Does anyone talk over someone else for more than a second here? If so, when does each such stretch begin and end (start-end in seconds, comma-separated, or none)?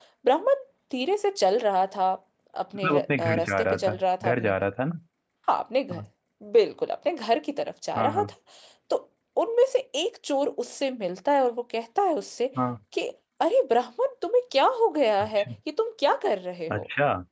2.8-4.5